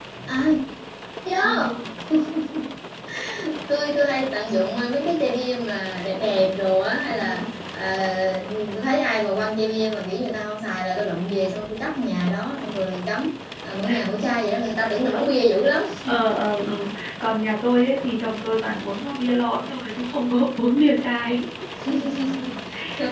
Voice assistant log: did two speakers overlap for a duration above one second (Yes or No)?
No